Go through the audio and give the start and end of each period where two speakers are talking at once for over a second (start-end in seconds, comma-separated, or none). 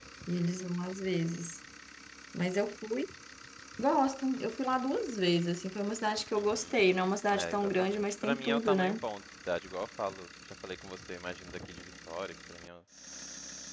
7.3-9.0